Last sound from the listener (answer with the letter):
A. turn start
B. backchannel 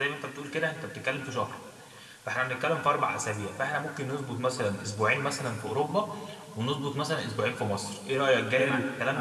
A